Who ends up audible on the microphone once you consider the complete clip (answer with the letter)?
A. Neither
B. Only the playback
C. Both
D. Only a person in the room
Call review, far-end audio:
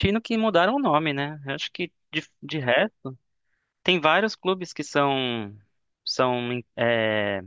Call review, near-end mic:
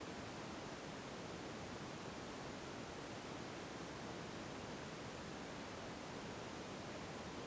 A